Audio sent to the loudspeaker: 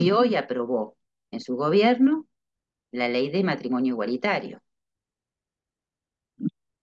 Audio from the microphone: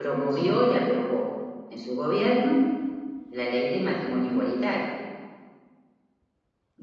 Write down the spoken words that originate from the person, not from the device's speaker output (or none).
none